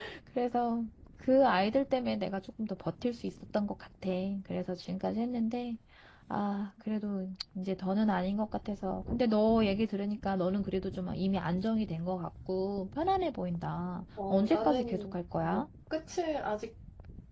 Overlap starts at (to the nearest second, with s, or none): 14 s